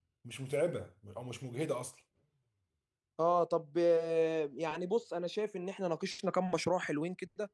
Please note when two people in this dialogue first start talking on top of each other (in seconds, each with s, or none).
none